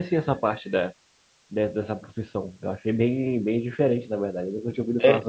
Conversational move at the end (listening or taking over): taking over